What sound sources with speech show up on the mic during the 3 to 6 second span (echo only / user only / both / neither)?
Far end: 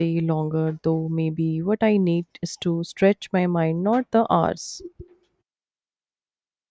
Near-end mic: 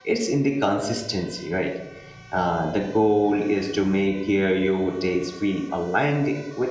user only